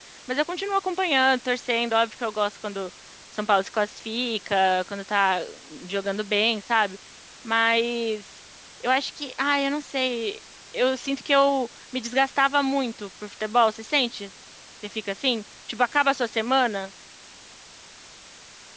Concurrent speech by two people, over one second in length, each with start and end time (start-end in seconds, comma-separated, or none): none